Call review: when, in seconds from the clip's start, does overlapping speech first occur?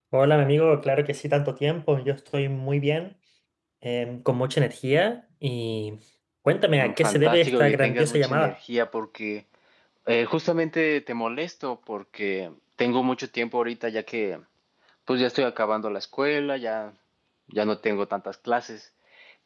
6.8 s

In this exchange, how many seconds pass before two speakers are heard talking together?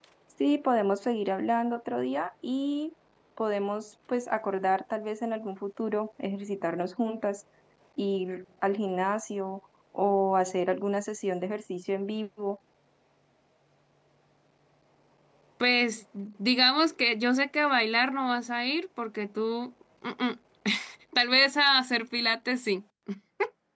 none

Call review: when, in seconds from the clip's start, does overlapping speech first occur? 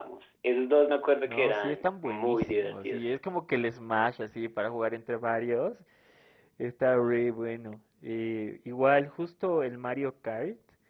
1.3 s

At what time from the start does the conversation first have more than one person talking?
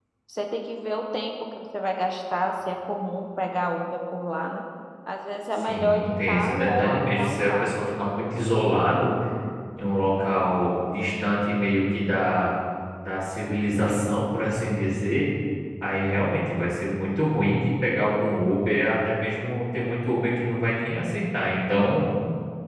5.7 s

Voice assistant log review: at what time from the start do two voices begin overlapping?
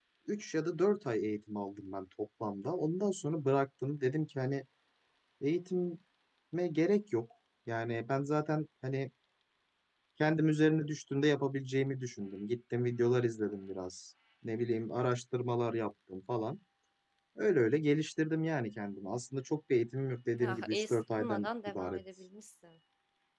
20.4 s

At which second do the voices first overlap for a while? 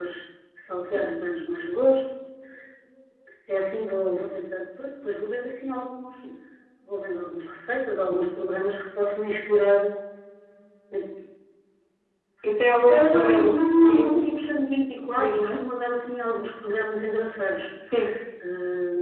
12.9 s

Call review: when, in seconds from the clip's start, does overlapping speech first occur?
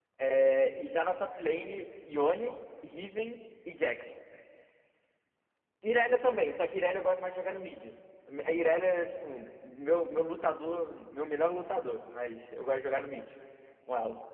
none

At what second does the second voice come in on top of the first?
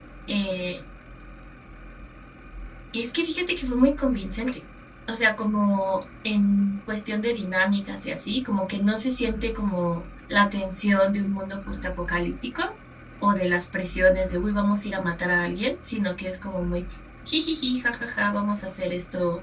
none

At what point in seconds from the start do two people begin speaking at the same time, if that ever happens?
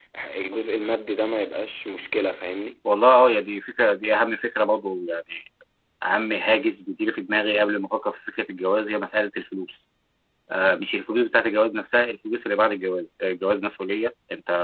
none

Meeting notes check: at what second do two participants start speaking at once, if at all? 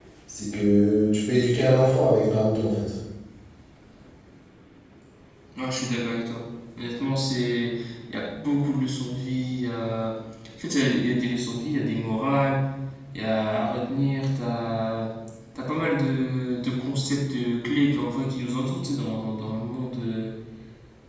none

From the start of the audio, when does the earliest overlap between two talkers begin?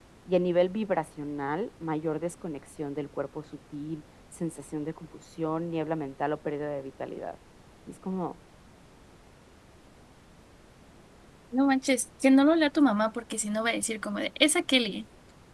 none

